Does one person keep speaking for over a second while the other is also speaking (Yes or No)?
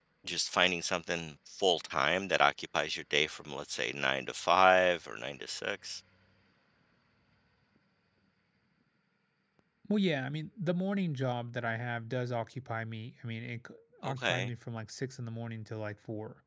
No